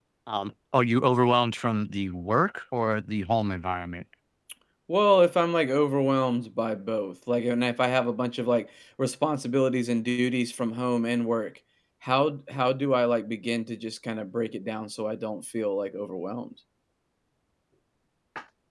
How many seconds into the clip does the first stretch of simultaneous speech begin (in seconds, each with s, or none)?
none